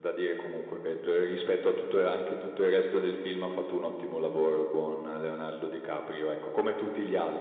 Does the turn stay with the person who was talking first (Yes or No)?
Yes